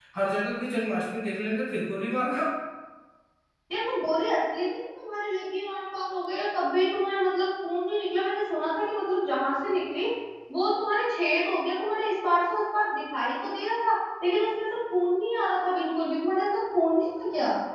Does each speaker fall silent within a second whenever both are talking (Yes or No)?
Yes